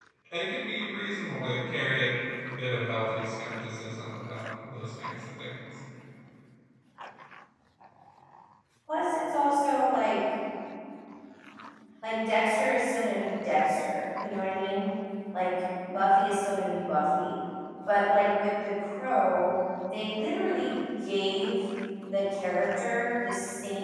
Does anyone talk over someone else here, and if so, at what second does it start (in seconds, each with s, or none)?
none